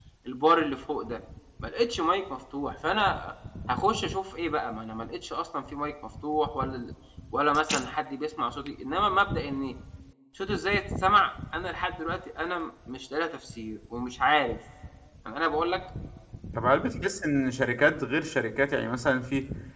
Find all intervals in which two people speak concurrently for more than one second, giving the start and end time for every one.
none

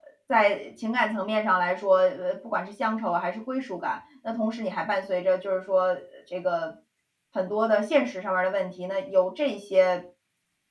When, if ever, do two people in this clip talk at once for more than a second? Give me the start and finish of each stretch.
none

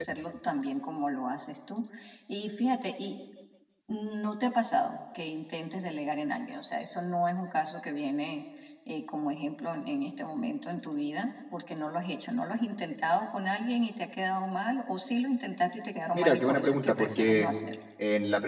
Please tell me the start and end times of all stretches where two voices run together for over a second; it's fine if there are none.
16.1-17.5

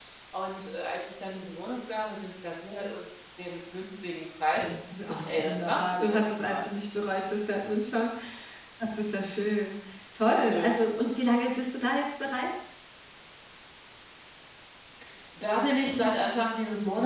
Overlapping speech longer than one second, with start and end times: 5.0-6.7

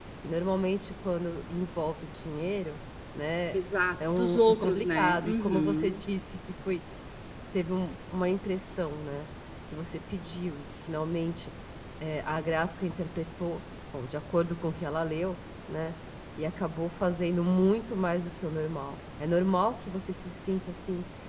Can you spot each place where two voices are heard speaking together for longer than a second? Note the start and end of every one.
4.1-6.0

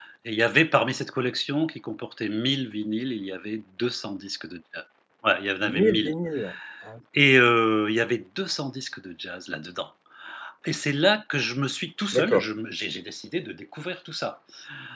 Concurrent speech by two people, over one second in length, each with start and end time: none

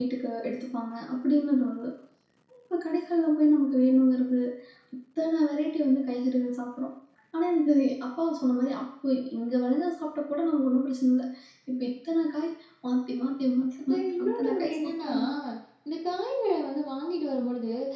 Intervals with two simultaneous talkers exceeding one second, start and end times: 13.9-15.1

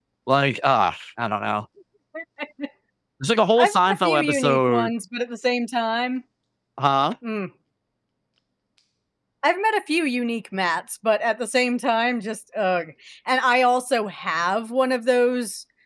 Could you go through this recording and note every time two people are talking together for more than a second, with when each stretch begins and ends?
3.6-4.9

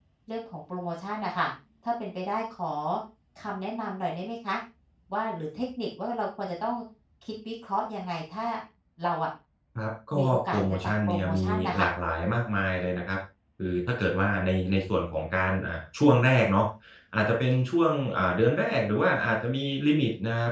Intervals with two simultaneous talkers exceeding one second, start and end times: 10.2-11.9

